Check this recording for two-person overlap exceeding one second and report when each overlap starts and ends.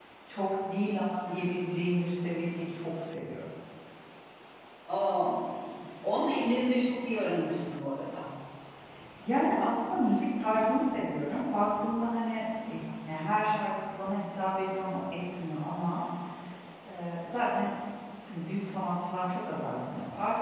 none

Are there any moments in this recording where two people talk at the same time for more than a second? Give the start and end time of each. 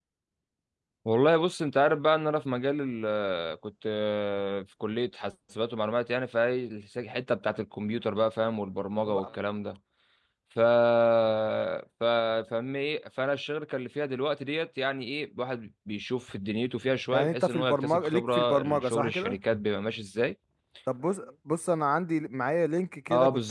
17.1-19.4

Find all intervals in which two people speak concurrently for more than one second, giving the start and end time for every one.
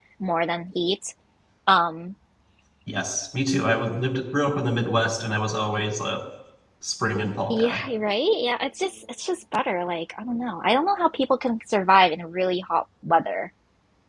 none

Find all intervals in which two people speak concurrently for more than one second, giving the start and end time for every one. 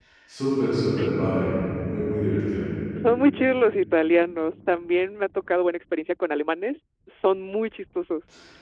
none

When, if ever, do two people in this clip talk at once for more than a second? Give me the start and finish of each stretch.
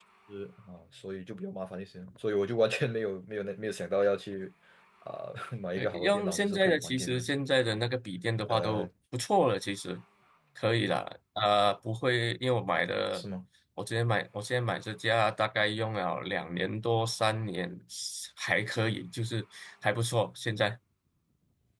5.8-7.2

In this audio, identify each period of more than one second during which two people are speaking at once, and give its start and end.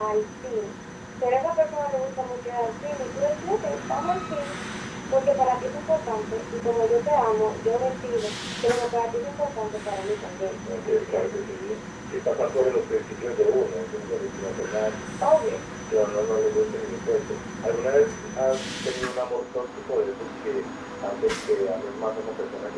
none

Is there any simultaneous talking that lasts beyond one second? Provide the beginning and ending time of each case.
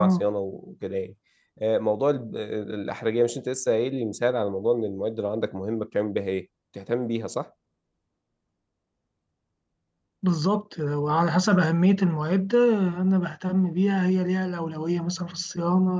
none

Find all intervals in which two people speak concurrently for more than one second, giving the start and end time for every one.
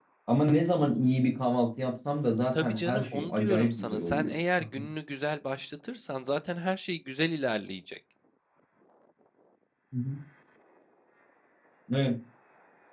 2.5-4.3

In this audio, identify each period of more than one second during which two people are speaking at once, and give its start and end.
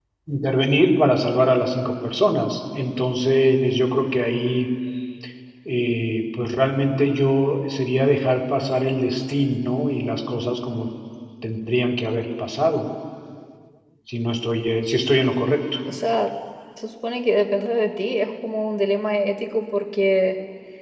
none

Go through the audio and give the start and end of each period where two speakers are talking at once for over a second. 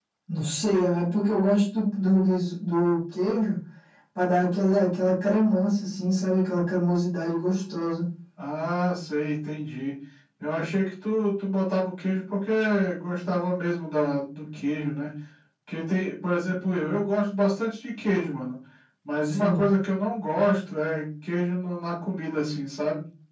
none

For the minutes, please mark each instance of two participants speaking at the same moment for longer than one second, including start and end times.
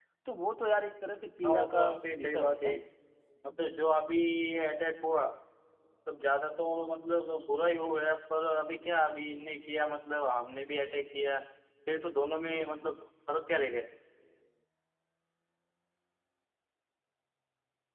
1.4-2.8

